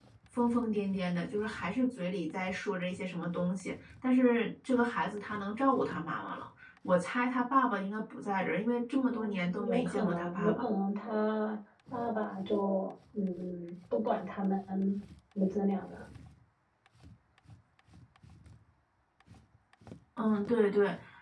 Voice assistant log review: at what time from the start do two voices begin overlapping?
9 s

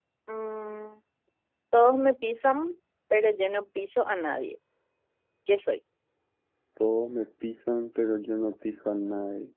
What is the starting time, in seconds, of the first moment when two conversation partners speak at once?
none

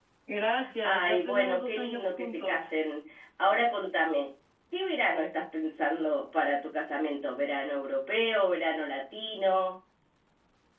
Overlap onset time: 1 s

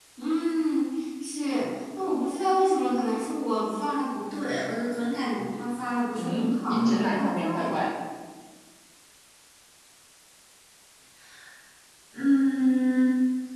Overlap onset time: 6 s

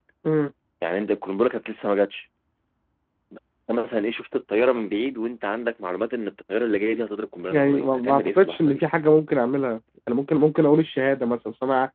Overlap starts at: 8 s

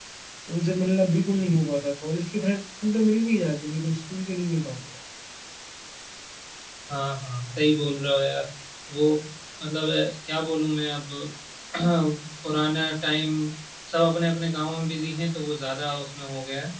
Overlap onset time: none

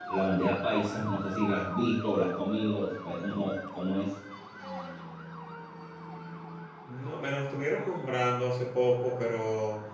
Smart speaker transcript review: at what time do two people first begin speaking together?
none

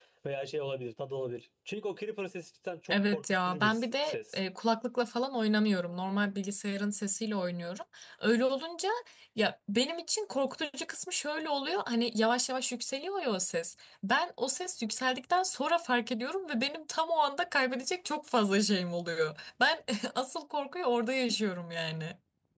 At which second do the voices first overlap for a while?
3 s

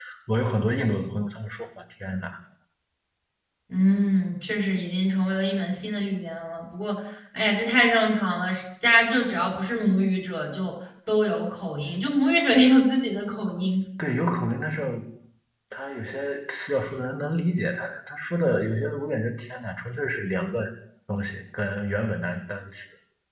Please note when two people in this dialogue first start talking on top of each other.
none

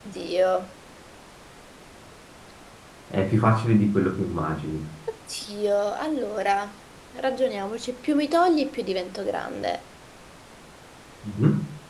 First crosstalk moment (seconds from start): none

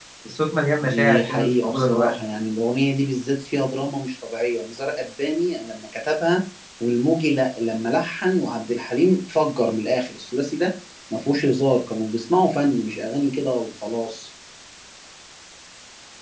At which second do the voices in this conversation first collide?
1 s

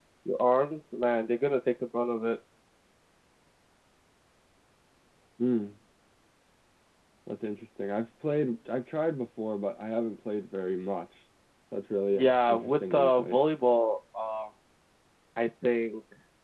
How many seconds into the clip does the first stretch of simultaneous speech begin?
12 s

